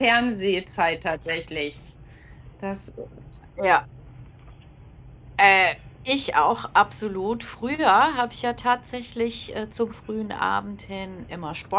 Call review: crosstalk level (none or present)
none